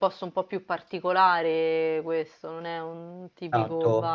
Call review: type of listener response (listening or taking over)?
taking over